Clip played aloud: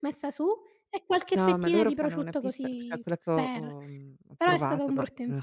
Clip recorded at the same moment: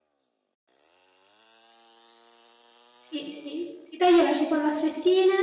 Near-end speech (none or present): present